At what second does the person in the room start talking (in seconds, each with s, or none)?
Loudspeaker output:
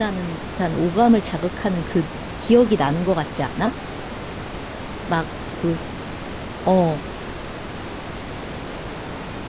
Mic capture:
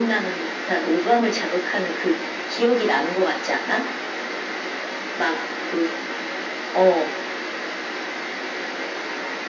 none